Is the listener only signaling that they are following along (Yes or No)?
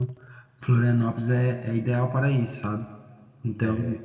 No